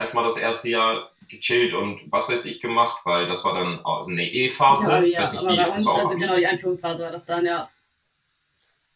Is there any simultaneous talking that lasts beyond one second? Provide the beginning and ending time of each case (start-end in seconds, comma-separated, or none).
4.7-6.3